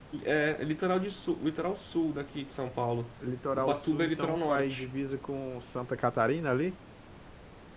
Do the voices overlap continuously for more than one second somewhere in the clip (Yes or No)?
Yes